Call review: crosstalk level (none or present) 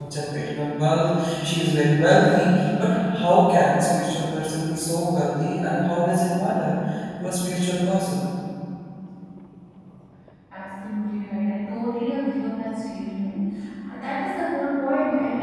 none